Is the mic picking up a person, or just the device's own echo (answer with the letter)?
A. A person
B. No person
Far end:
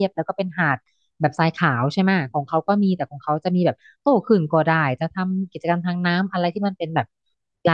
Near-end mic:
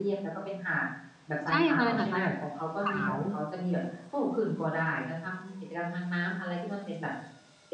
A